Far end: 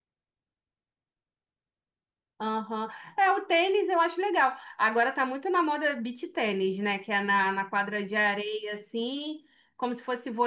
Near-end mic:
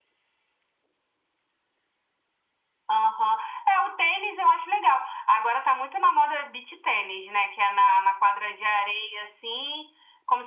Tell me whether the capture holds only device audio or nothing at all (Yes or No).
Yes